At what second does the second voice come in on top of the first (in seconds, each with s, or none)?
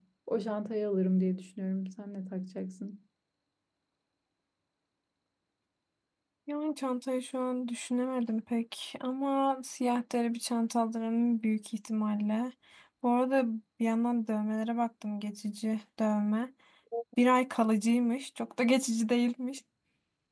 none